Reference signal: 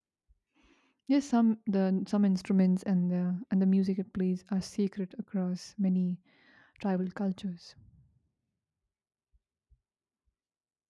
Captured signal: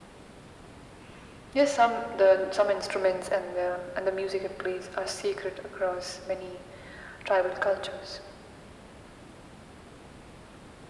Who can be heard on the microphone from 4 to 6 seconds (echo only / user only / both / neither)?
echo only